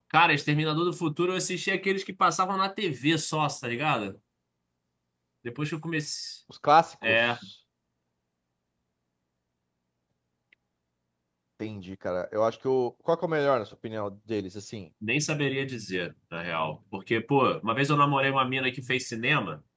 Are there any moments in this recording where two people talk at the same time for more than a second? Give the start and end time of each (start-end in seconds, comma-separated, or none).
none